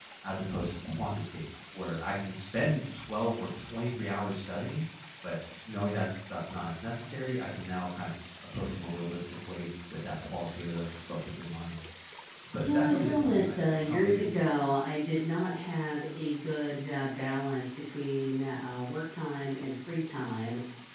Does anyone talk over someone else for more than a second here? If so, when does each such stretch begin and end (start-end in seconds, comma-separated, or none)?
12.6-14.3